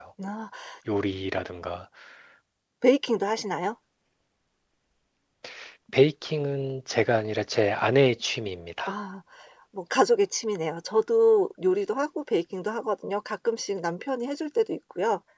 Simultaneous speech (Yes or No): No